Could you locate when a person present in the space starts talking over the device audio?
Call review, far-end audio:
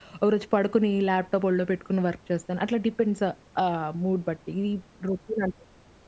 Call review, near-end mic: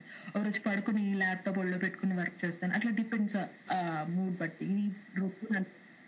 none

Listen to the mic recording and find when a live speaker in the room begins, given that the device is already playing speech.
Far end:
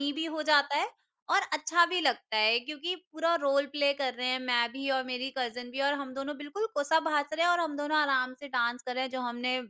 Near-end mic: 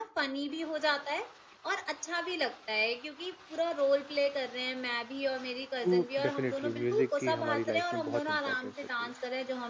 5.8 s

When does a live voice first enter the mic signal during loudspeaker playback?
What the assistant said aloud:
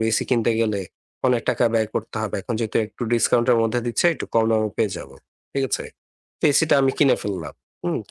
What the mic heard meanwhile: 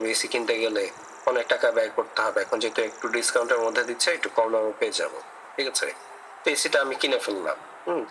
none

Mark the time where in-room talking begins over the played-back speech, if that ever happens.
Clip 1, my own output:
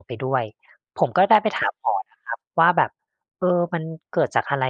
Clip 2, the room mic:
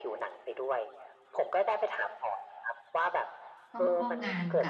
3.7 s

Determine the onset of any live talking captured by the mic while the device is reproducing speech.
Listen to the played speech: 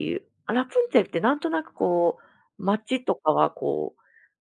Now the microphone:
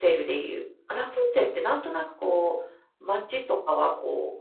none

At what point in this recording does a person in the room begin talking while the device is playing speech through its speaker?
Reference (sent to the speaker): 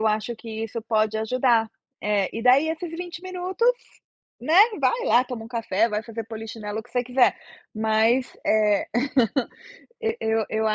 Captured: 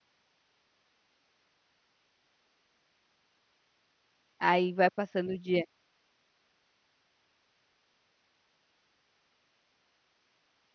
4.4 s

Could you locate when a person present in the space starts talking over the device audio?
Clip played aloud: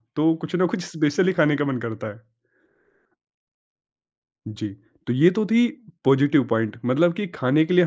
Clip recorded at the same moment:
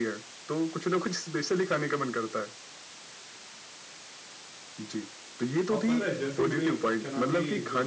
5.7 s

